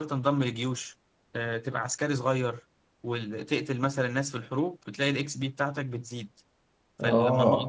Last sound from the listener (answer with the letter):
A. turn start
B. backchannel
B